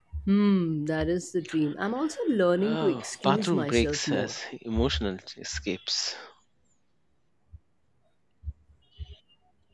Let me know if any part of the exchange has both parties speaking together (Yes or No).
Yes